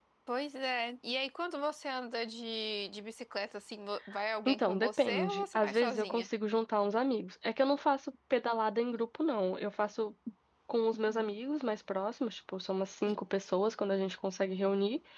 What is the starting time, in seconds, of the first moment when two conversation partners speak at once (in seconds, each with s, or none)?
4.5 s